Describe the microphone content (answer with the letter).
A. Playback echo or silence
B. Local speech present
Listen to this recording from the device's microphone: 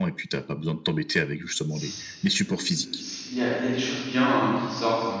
B